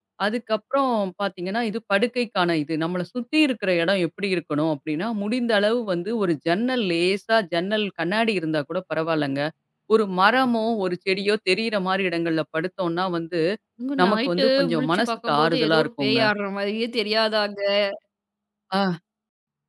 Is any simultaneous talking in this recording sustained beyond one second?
Yes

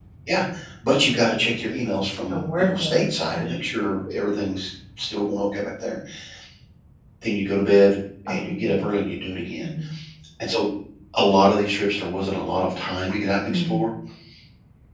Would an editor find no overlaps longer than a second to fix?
No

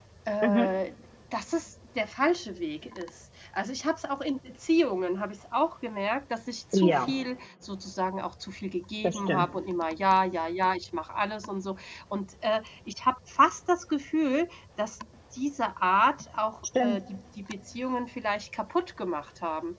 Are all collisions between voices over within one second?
Yes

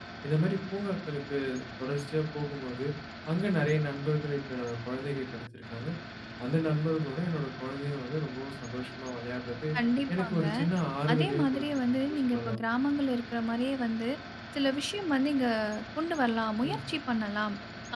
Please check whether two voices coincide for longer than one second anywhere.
Yes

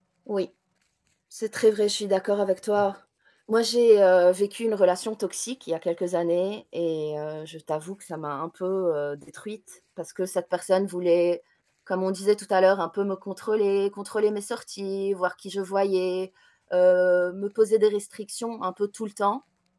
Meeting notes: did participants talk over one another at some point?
No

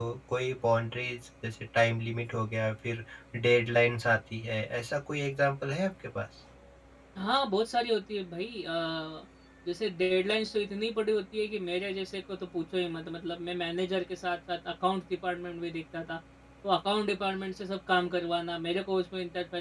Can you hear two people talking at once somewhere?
No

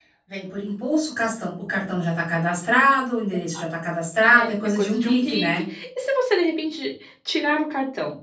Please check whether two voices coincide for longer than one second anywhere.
Yes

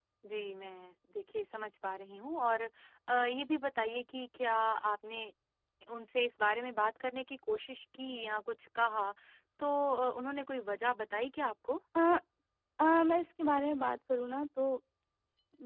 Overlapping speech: No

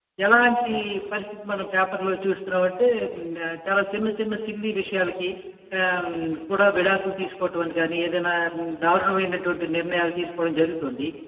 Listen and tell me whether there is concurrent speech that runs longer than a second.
No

